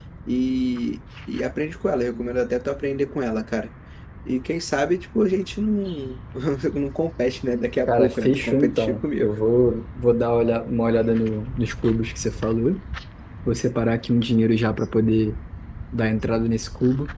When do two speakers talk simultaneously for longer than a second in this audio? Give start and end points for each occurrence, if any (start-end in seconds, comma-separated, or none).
7.9-9.3